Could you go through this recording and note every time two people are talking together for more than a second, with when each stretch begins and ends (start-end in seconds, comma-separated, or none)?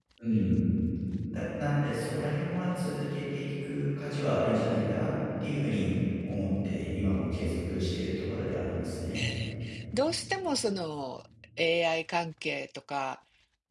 none